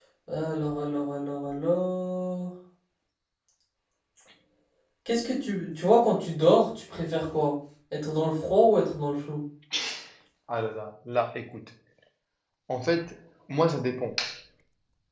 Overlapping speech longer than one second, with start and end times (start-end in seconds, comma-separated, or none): none